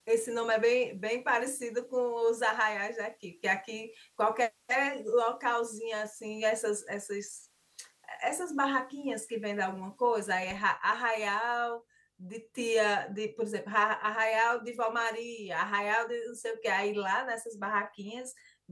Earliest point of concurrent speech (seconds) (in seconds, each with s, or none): none